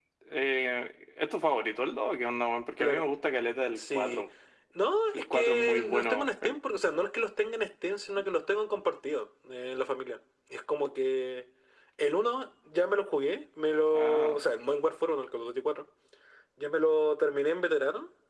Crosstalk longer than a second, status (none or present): present